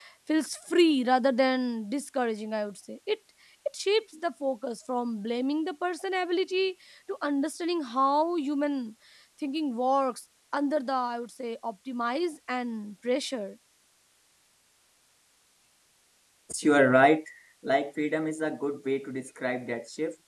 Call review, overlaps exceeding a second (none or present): none